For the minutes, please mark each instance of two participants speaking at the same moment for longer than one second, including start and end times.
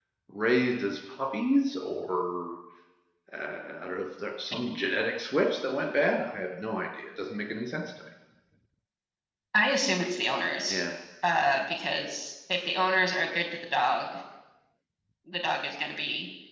none

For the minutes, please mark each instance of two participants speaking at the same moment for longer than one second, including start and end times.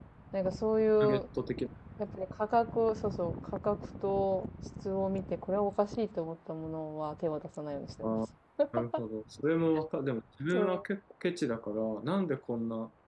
none

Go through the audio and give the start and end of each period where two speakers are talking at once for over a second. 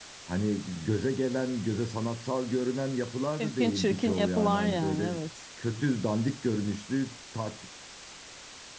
3.4-5.1

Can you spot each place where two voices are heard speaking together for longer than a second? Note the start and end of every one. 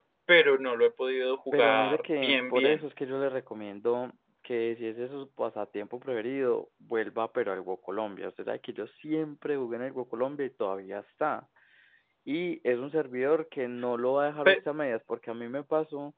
1.5-2.8

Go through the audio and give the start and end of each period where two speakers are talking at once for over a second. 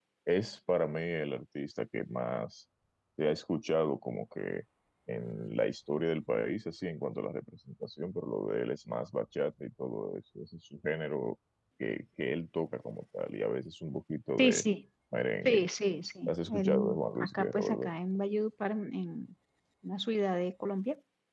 16.3-17.9

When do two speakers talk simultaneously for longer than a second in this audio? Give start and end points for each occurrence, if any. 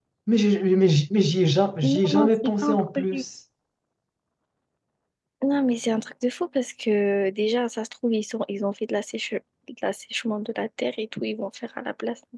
1.8-3.2

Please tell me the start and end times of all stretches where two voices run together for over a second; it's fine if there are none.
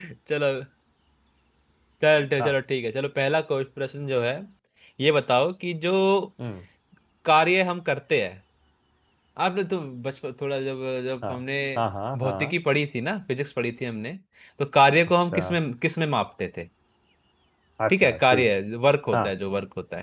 none

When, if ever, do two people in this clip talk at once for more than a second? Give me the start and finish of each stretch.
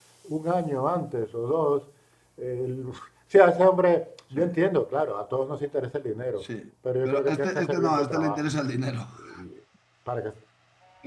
7.0-8.4

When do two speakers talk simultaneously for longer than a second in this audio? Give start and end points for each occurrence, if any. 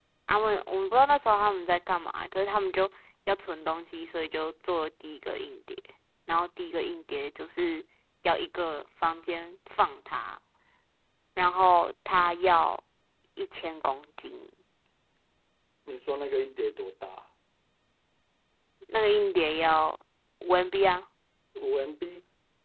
none

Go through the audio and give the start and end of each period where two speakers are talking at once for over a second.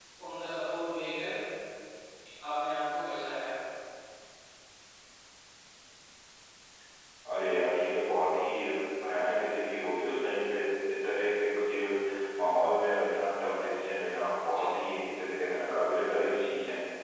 none

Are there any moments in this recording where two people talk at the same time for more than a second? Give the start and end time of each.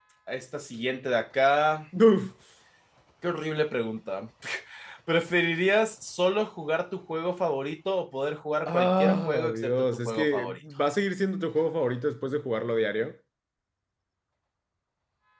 8.7-10.6

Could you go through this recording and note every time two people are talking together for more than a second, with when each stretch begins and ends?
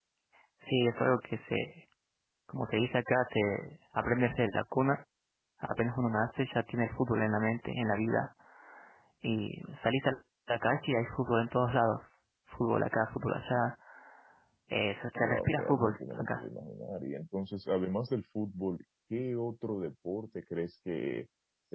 15.2-16.4

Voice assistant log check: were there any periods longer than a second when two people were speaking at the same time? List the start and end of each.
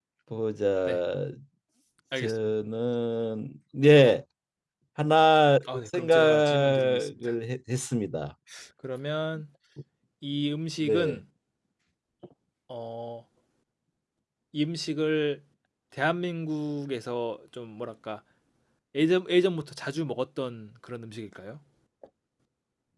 5.9-7.3

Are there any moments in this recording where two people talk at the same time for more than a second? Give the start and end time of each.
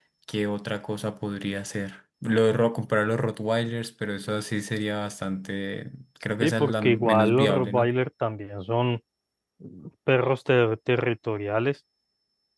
6.4-7.9

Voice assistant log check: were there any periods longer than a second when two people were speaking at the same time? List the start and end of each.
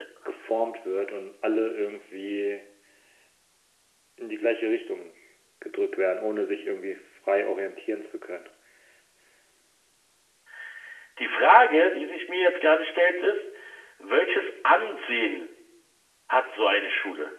none

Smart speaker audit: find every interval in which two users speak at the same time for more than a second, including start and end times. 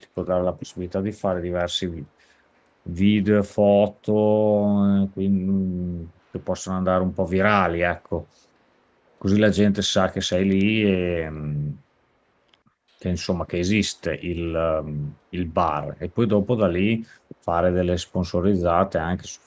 none

